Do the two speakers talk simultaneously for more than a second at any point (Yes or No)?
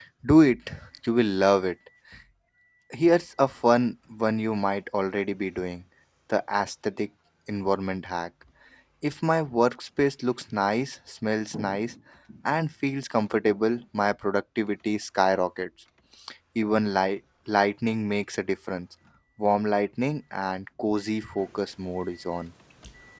No